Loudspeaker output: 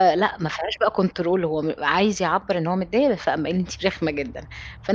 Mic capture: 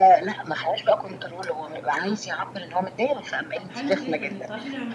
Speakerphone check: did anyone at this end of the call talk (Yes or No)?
Yes